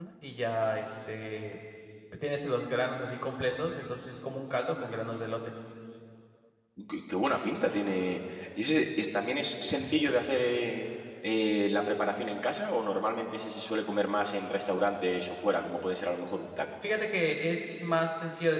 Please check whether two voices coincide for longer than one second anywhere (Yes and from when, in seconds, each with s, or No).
No